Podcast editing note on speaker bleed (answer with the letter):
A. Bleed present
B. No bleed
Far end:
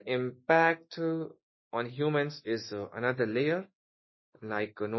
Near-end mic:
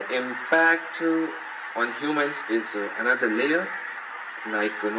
A